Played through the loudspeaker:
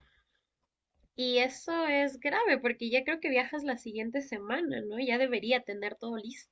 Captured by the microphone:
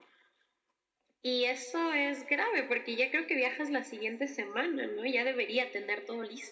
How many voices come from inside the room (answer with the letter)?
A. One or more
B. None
B